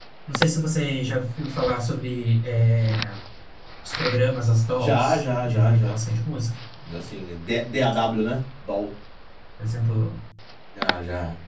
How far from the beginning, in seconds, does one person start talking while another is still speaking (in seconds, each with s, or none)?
4.8 s